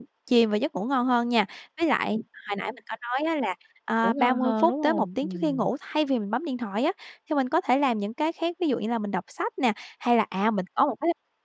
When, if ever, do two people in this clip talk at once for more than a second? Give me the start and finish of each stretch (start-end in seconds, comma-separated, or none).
4.0-5.7